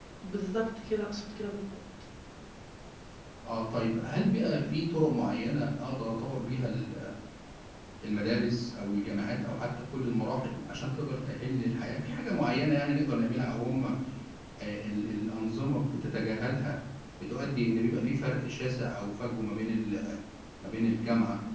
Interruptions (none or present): none